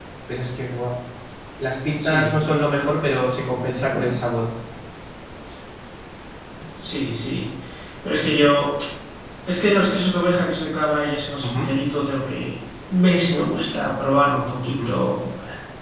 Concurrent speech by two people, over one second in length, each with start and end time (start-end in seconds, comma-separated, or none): none